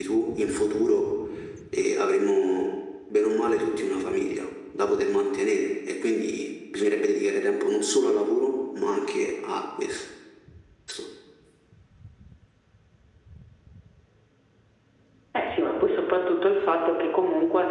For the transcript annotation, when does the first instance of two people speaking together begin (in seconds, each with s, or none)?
none